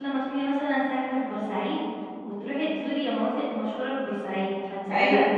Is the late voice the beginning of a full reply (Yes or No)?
No